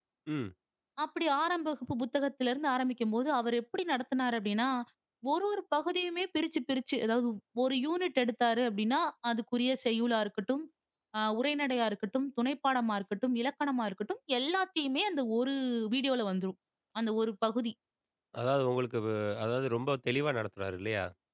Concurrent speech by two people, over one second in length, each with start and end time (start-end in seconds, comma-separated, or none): none